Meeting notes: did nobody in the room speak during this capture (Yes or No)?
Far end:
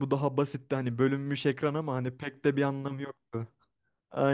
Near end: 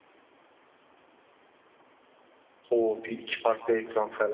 No